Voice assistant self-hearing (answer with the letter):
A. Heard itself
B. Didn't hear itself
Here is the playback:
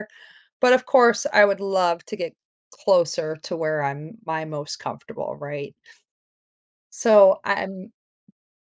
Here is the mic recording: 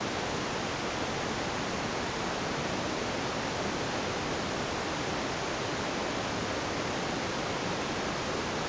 B